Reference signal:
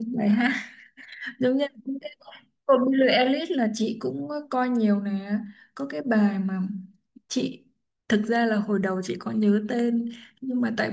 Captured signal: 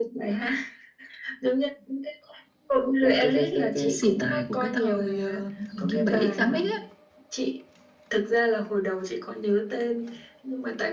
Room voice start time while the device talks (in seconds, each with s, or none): 3.0 s